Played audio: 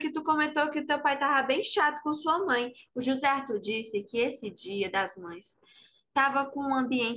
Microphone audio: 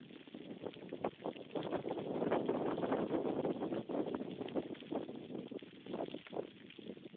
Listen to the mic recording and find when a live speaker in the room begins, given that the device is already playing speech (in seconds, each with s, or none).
none